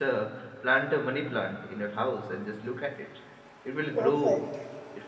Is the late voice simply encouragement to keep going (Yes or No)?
Yes